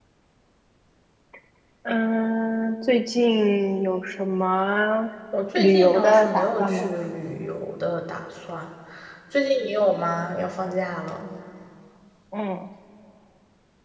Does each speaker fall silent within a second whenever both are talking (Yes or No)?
No